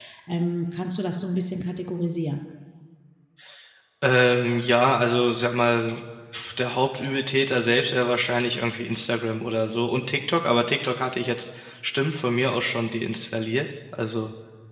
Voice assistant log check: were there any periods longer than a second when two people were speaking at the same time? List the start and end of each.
none

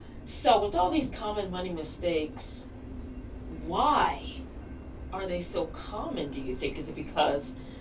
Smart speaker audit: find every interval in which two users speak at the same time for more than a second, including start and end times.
none

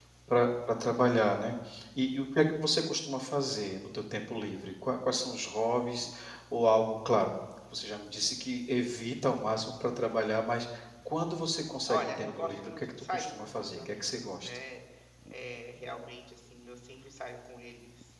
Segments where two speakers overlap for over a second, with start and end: 11.9-14.6

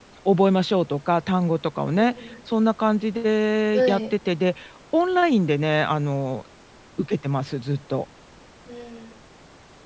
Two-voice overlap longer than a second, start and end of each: none

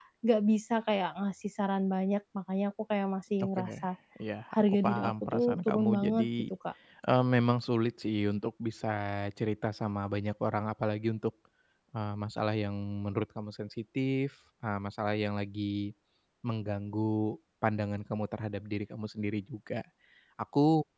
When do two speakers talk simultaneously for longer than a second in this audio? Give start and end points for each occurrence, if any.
4.5-6.3

